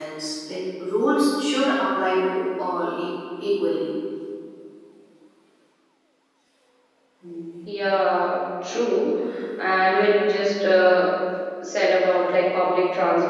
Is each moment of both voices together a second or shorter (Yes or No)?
Yes